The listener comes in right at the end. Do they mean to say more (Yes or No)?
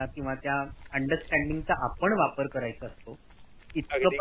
No